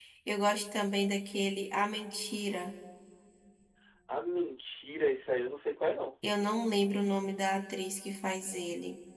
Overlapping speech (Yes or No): No